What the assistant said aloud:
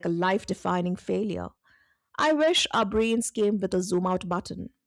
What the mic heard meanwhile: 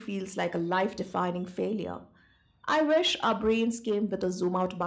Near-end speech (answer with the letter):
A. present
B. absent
B